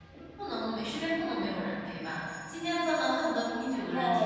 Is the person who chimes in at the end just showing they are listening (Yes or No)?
No